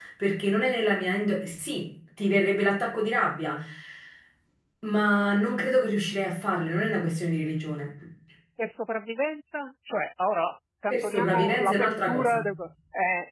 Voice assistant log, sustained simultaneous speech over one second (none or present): present